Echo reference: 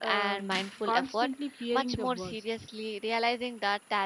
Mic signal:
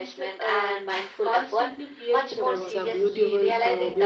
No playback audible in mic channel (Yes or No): No